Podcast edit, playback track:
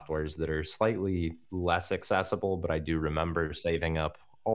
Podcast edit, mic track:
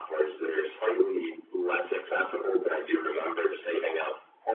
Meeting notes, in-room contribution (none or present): none